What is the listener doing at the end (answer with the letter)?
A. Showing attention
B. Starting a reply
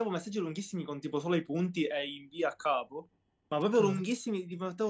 A